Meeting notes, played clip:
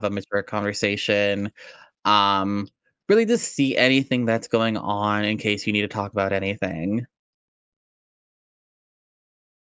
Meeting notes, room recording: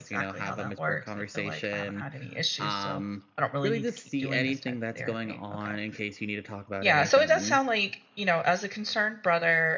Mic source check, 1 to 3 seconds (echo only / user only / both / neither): both